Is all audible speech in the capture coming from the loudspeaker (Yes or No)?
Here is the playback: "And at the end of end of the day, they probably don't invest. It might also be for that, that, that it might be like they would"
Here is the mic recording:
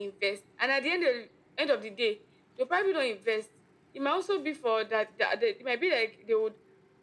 Yes